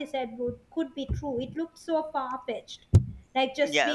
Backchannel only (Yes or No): No